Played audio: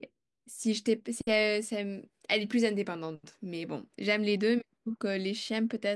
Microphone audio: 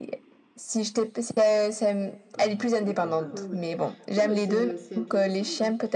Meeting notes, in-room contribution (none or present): present